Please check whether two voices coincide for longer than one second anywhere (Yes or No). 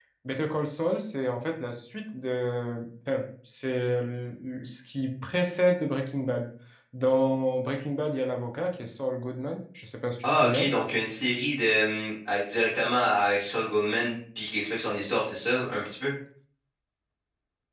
No